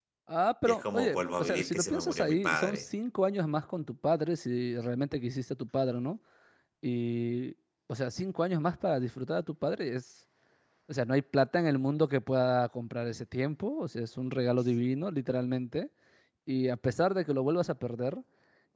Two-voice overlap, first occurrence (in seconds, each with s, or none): 0.7 s